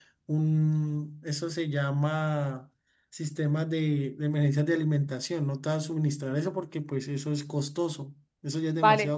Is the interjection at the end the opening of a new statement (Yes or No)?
Yes